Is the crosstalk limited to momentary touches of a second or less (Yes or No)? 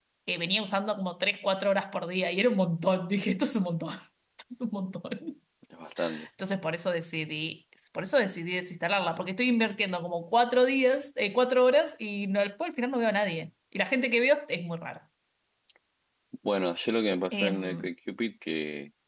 Yes